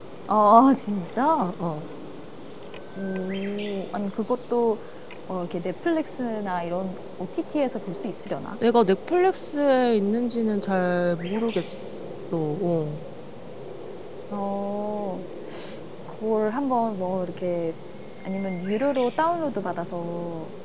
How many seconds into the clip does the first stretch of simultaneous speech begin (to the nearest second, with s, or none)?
none